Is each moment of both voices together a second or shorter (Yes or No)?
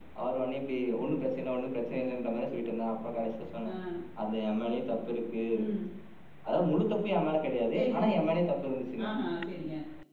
Yes